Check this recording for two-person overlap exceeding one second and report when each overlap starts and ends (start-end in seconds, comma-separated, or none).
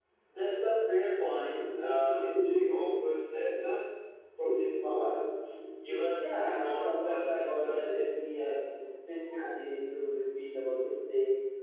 6.2-7.9